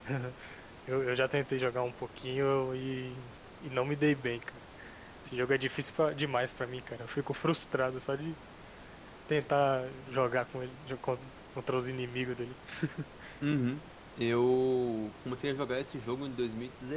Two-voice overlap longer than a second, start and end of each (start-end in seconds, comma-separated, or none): none